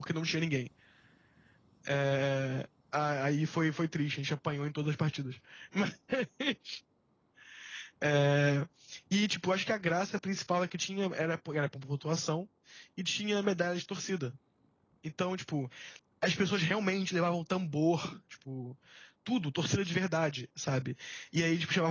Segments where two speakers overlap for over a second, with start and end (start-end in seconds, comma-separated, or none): none